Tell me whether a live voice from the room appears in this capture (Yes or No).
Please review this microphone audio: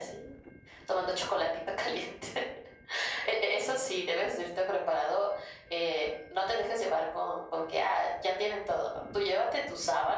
No